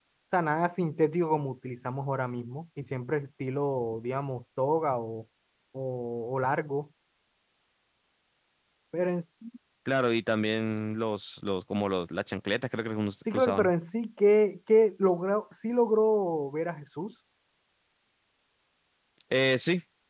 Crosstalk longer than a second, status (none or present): none